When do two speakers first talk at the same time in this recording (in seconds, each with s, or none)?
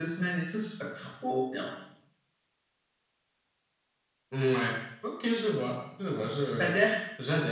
none